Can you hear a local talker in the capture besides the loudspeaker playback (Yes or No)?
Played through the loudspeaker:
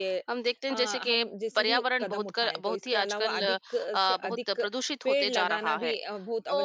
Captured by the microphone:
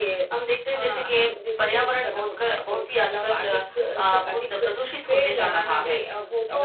No